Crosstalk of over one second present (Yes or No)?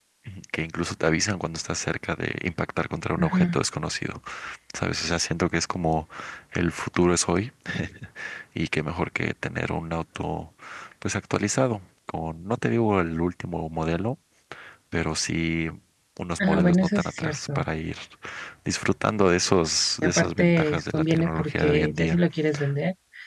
Yes